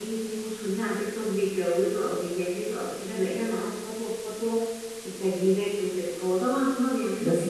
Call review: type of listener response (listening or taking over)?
listening